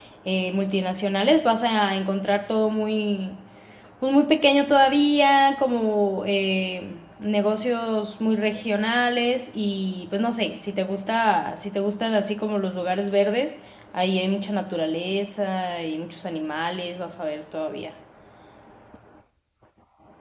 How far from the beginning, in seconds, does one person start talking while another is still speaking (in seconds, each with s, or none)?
none